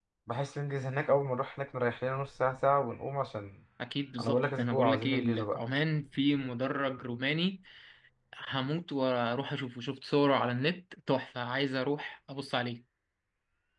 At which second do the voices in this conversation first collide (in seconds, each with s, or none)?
4.2 s